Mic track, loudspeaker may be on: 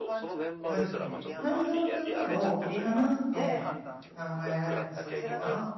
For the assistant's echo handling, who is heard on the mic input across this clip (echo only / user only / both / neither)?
both